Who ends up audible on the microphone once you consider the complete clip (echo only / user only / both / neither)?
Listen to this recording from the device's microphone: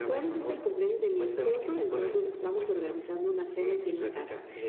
echo only